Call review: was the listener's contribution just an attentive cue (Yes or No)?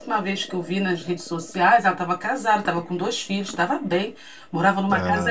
Yes